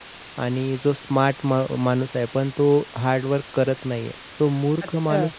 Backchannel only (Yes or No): Yes